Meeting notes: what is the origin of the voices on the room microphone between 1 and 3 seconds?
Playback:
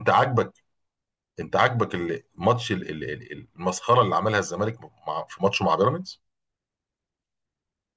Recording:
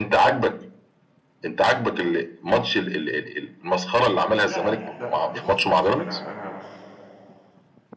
echo only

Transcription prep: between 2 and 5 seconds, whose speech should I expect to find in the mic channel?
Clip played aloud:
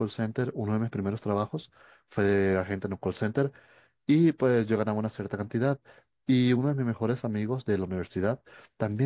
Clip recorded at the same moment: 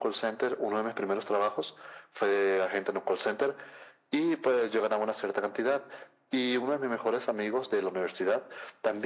echo only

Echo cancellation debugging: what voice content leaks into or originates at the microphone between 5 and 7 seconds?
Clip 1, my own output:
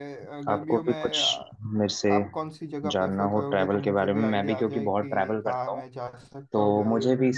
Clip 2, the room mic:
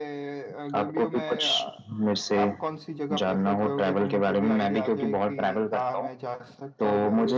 echo only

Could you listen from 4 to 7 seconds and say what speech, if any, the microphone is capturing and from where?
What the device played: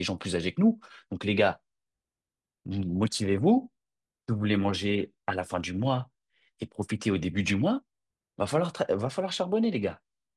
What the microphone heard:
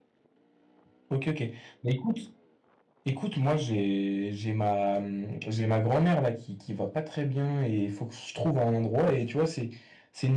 user only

